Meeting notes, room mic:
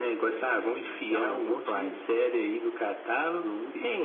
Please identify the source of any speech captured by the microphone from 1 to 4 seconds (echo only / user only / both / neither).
echo only